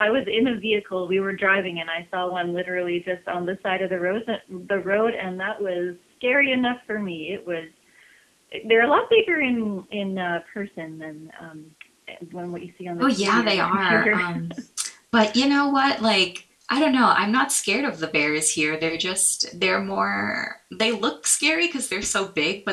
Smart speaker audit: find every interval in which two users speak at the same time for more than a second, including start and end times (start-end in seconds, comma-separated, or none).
13.0-14.2